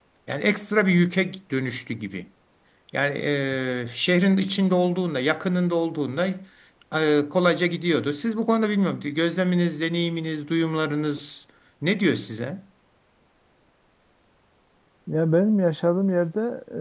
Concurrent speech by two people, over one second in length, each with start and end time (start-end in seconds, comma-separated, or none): none